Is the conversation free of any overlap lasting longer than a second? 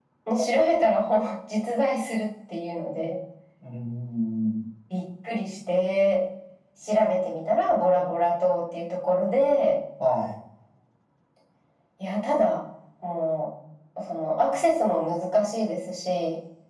Yes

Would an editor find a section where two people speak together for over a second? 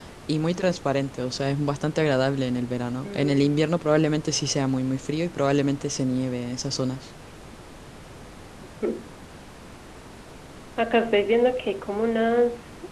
No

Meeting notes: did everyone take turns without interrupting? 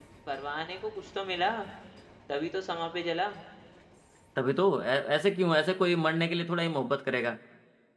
Yes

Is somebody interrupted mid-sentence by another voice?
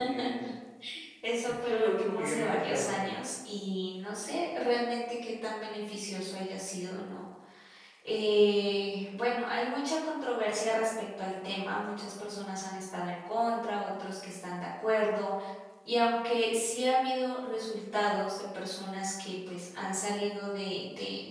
Yes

